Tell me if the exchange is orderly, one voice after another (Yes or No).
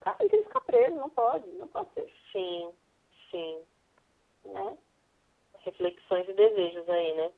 Yes